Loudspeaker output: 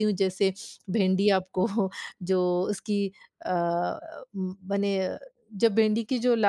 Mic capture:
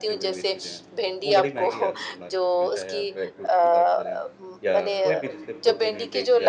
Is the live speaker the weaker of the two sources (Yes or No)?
Yes